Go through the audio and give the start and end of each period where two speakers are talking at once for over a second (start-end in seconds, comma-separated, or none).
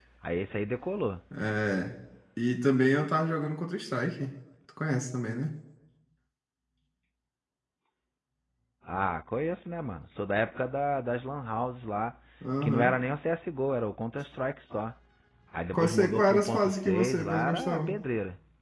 15.7-17.9